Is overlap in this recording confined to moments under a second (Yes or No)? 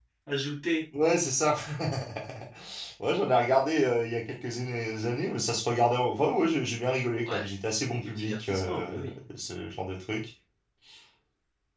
No